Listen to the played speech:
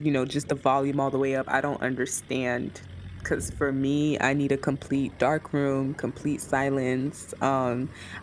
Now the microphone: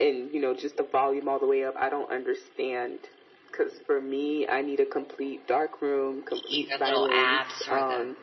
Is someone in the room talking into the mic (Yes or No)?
Yes